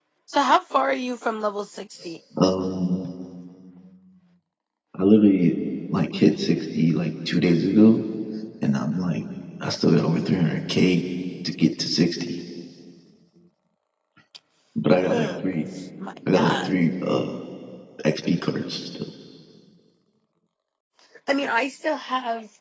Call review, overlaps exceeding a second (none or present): none